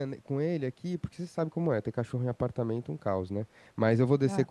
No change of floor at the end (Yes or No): Yes